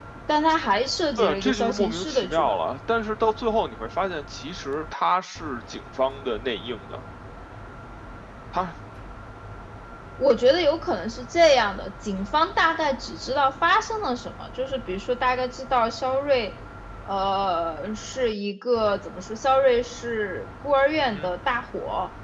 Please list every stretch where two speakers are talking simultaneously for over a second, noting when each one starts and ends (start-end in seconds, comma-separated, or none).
1.2-2.6